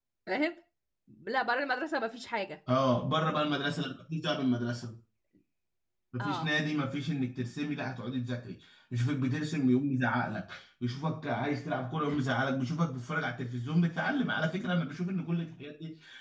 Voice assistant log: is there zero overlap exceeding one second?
Yes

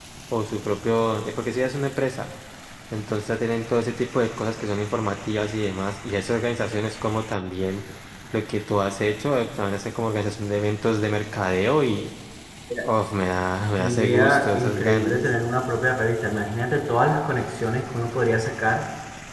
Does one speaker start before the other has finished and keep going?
Yes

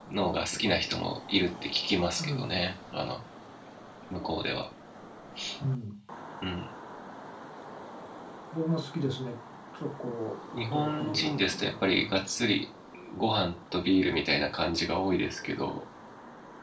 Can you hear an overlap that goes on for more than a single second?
Yes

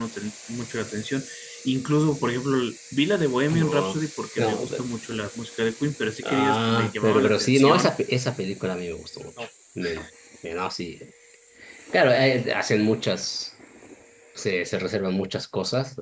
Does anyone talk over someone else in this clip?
Yes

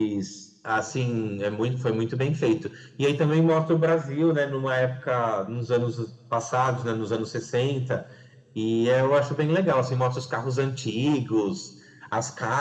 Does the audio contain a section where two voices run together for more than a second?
No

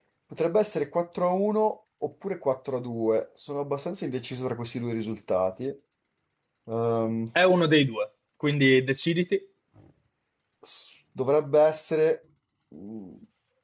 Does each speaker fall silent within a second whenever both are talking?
Yes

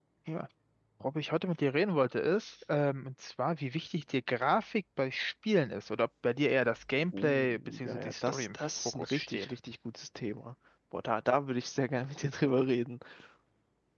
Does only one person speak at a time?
No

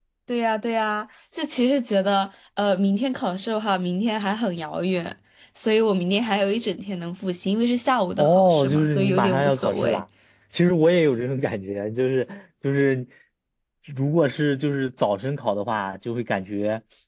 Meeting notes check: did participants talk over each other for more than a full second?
Yes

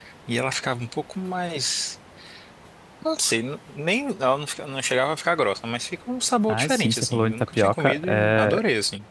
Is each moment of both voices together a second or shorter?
No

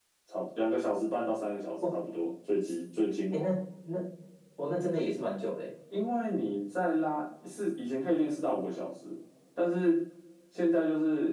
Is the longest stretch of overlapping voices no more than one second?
Yes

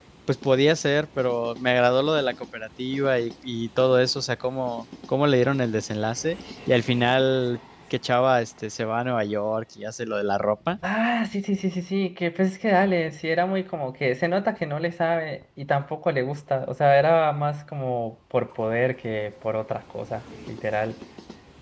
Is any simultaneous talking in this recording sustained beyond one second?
No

